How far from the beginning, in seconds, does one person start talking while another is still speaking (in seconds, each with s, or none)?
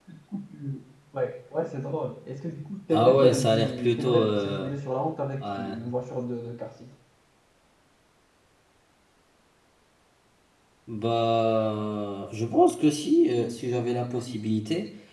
2.9 s